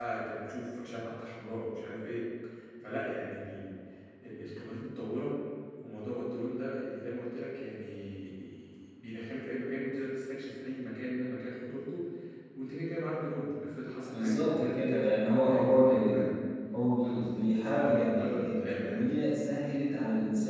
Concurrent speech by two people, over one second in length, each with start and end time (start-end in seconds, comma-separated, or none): 14.1-16.2, 17.0-19.0